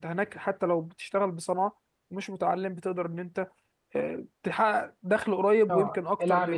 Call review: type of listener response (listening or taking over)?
taking over